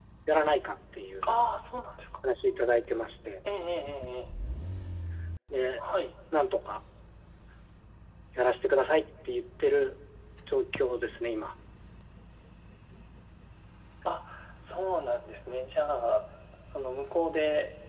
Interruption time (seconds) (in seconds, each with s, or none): none